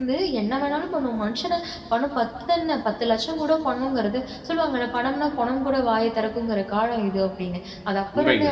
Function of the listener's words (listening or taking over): listening